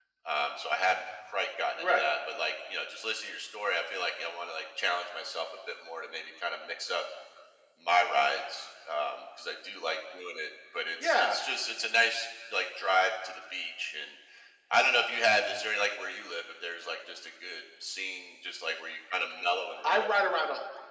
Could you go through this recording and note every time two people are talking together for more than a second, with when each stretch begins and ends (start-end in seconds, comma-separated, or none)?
none